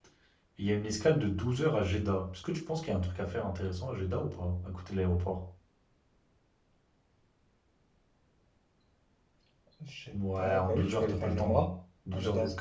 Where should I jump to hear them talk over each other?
10.1 s

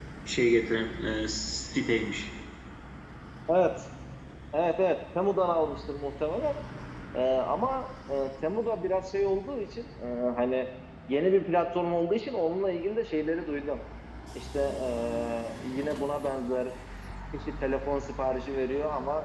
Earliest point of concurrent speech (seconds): none

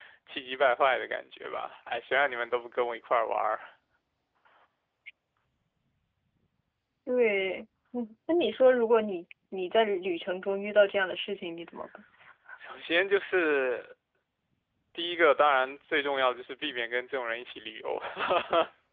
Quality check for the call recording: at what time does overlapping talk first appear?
none

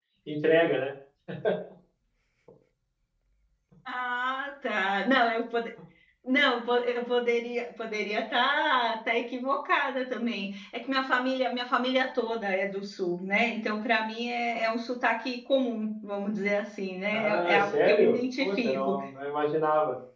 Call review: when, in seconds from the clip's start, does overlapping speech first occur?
17.1 s

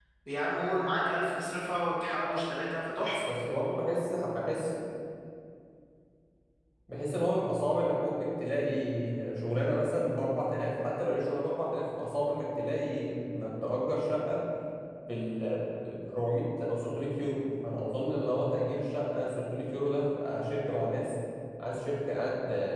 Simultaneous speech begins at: none

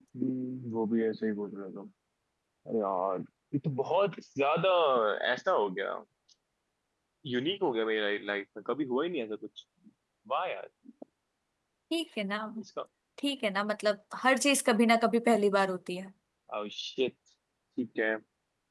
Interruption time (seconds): none

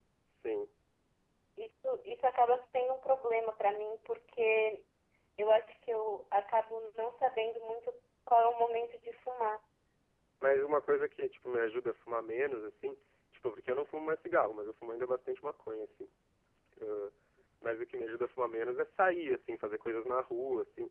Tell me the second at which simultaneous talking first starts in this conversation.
none

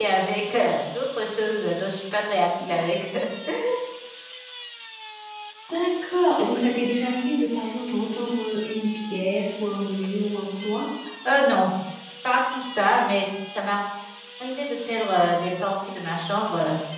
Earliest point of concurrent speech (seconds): none

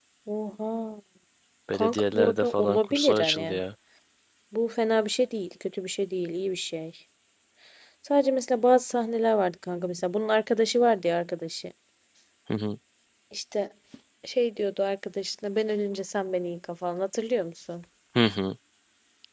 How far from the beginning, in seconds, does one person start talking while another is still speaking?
1.7 s

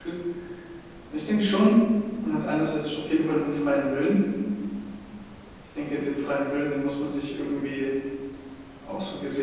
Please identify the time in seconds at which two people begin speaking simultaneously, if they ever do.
none

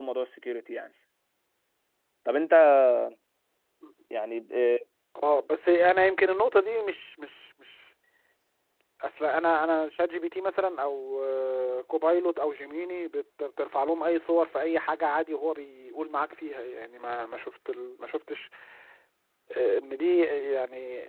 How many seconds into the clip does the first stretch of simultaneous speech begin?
none

